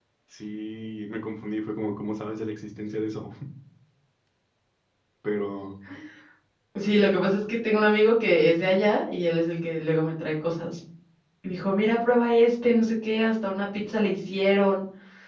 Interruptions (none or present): none